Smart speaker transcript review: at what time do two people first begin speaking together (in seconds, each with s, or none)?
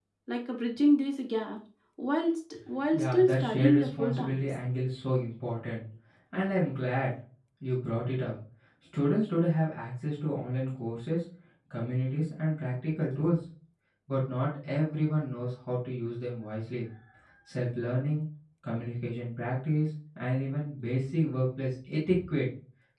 2.9 s